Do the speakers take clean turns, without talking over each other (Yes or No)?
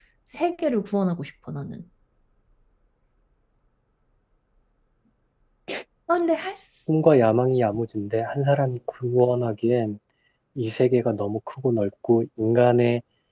Yes